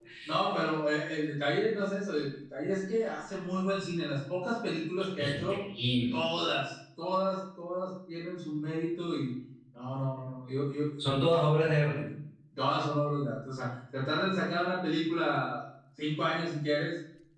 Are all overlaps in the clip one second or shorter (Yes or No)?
Yes